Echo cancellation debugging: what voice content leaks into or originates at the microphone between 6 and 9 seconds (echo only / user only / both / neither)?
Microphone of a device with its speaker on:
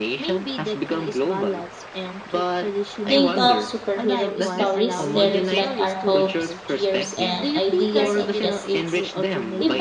both